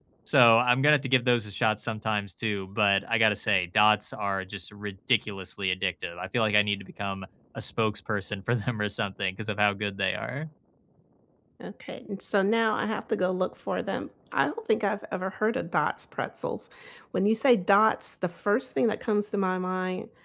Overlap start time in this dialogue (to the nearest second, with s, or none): none